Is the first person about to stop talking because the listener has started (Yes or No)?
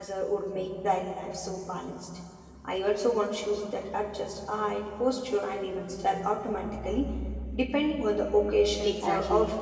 Yes